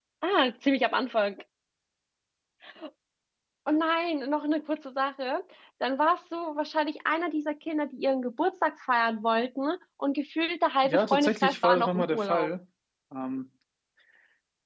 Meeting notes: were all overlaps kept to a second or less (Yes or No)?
No